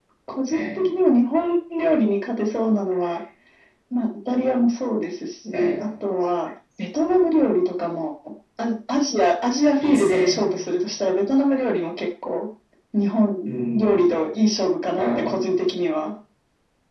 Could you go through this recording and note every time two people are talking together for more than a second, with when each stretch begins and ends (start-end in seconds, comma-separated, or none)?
none